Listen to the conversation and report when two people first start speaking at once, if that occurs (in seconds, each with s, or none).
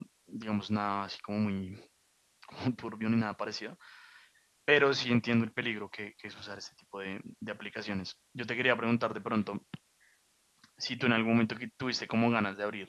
none